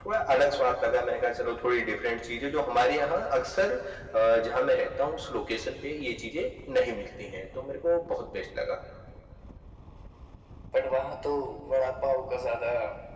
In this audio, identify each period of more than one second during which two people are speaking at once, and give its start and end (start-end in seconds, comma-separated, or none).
none